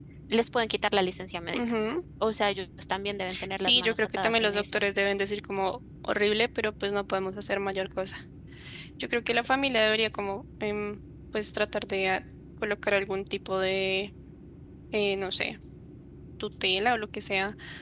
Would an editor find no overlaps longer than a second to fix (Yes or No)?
No